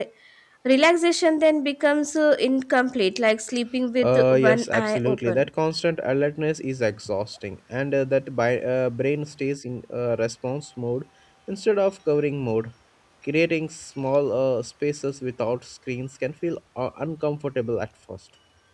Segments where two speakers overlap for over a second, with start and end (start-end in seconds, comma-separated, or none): 4.0-5.5